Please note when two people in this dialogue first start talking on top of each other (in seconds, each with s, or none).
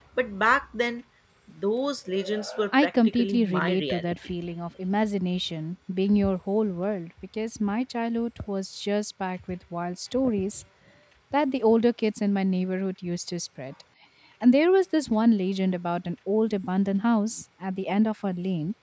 2.7 s